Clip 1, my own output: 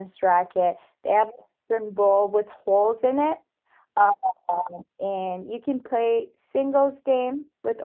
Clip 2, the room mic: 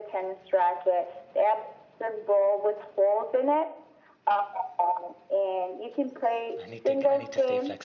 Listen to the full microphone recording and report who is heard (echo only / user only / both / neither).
both